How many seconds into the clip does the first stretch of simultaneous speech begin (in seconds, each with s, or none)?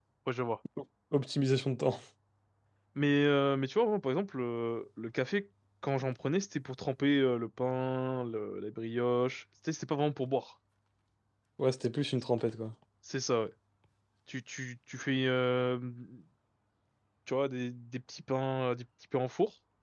none